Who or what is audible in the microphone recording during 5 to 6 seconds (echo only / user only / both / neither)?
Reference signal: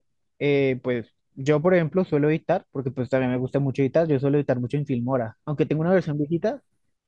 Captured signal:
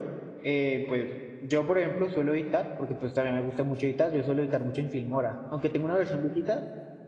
echo only